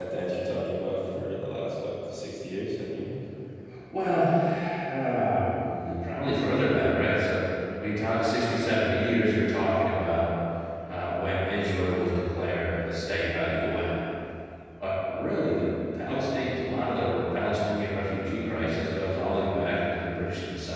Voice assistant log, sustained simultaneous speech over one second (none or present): none